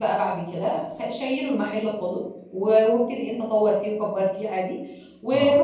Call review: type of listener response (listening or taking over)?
listening